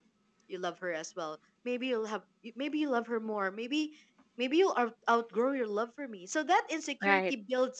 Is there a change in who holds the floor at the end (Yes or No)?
No